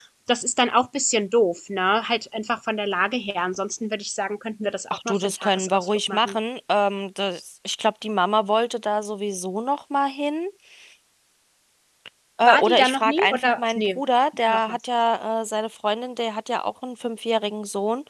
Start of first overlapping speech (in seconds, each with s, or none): 4.9 s